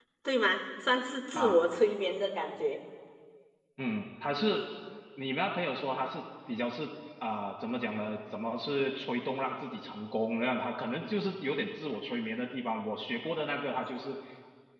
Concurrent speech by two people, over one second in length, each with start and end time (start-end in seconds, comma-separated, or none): none